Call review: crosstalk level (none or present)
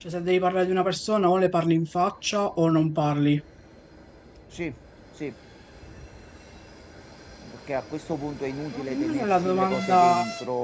present